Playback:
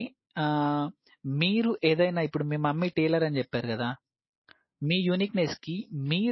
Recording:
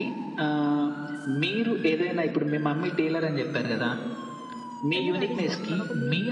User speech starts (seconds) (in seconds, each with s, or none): 5.0 s